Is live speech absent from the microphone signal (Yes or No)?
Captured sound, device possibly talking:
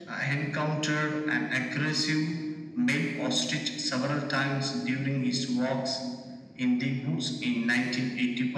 Yes